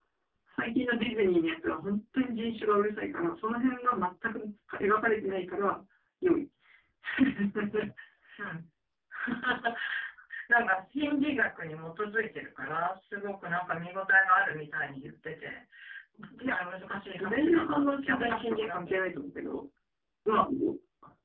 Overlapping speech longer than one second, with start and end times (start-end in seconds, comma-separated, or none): 17.2-19.0